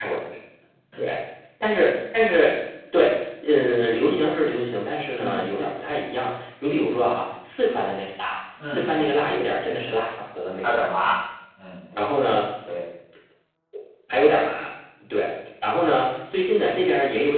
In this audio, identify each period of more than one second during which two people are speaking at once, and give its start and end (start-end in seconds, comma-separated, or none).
none